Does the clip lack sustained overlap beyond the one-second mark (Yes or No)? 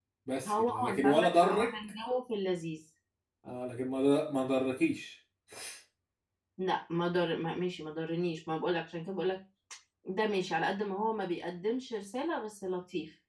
No